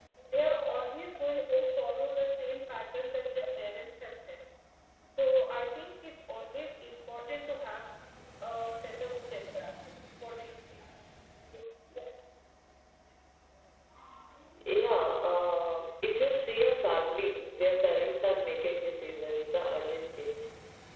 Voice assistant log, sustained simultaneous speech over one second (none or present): none